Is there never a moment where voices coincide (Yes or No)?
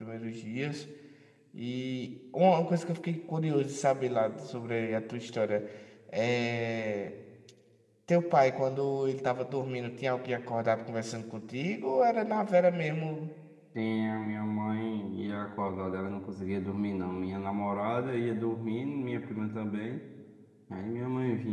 Yes